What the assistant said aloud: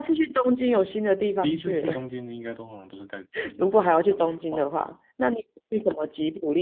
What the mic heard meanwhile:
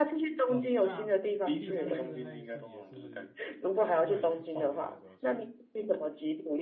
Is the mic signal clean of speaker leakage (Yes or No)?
No